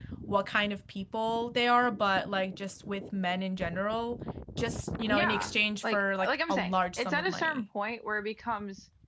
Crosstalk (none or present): present